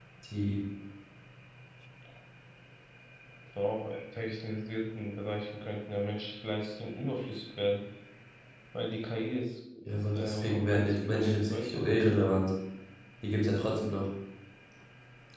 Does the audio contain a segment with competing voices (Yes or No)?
Yes